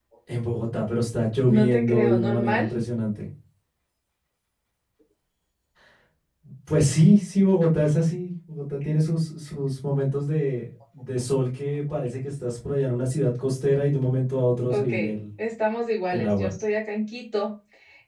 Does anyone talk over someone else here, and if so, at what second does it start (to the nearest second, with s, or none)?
1 s